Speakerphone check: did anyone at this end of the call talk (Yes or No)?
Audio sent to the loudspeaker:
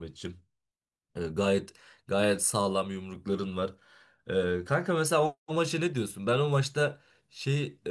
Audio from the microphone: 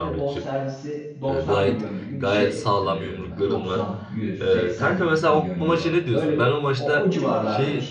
Yes